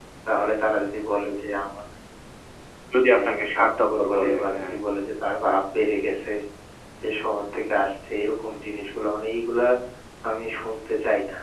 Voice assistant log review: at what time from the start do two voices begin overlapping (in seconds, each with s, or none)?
3.1 s